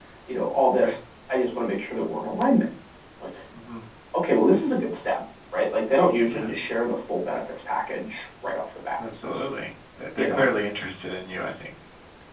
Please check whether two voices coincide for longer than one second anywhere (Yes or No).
No